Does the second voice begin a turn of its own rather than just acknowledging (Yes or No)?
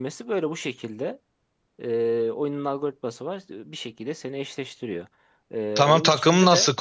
Yes